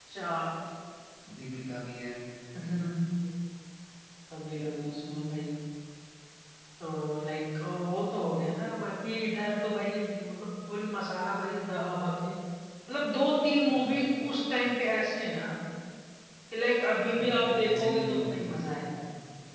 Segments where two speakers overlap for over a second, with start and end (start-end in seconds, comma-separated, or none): 17.2-18.6